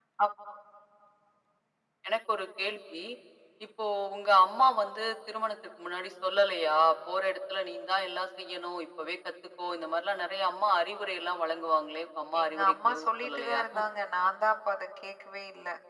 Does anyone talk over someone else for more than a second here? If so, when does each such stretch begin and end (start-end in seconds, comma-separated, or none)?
12.4-13.6